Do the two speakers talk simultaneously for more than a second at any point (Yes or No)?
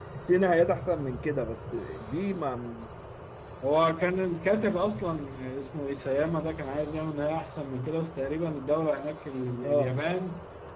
No